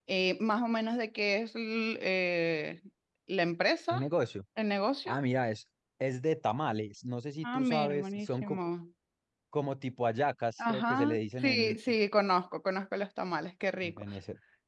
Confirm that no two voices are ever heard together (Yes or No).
No